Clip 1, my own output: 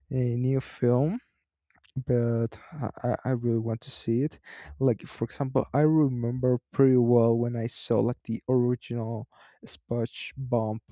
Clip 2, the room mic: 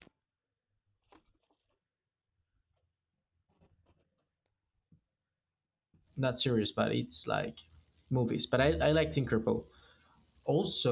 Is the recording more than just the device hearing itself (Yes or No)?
Yes